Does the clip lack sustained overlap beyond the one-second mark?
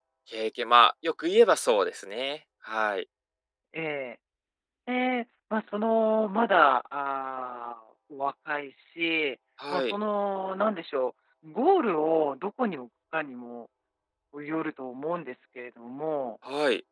Yes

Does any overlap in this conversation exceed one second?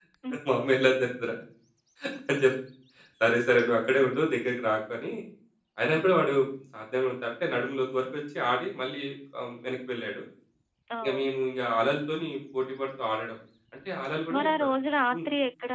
No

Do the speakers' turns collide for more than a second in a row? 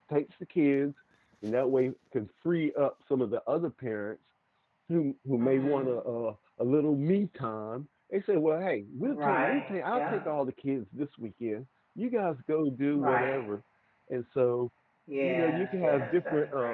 Yes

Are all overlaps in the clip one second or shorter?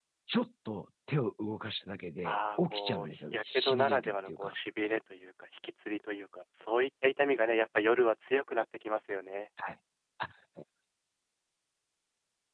No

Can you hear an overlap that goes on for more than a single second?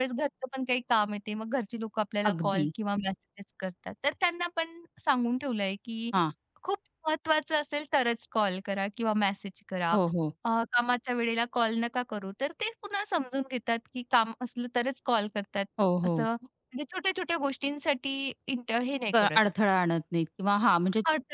No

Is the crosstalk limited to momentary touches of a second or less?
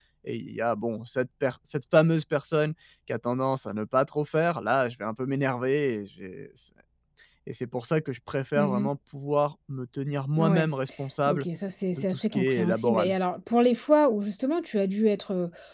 No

